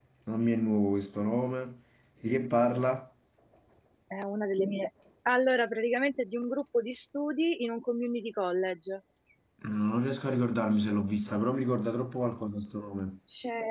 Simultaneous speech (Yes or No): No